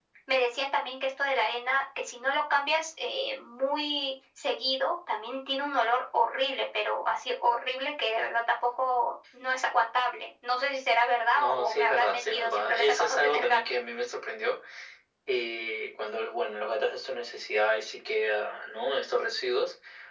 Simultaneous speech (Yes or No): Yes